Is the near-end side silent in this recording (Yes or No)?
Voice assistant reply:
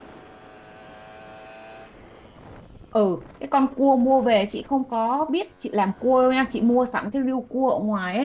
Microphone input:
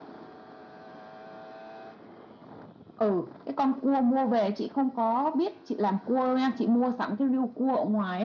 Yes